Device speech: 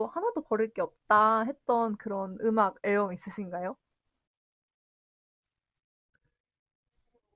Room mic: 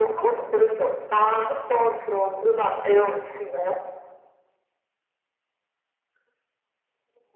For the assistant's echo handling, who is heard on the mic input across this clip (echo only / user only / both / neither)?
echo only